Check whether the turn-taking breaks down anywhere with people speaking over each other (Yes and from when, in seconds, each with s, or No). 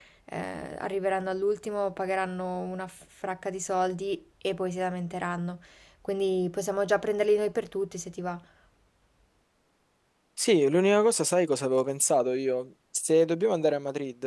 No